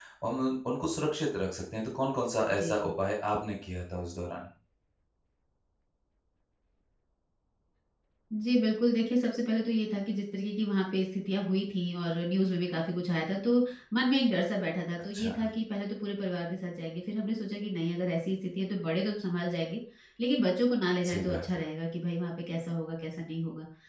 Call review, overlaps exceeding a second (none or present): none